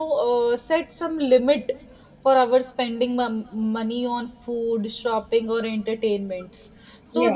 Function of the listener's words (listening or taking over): listening